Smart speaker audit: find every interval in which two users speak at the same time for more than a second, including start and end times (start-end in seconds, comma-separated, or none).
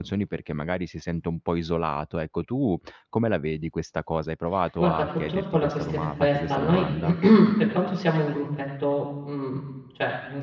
4.8-6.9